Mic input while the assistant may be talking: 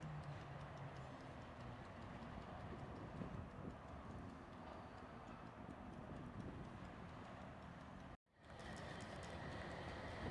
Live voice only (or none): none